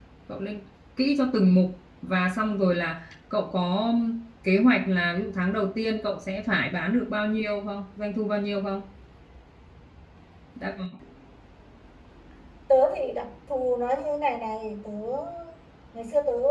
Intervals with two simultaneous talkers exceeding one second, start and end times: none

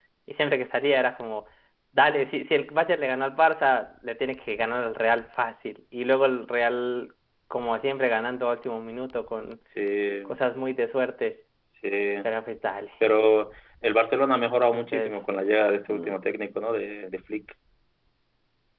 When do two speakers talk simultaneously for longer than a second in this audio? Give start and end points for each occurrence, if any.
none

